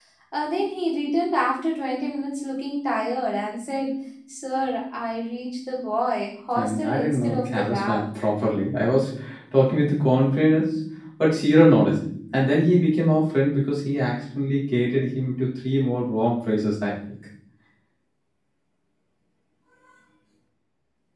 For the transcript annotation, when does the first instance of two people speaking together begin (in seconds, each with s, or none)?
6.6 s